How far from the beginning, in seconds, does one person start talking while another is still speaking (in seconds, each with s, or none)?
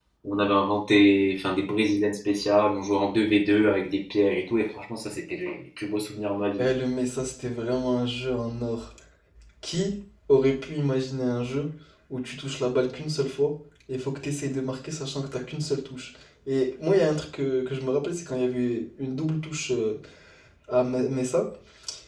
none